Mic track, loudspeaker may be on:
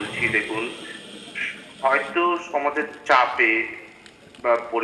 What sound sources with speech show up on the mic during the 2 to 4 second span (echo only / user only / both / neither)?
echo only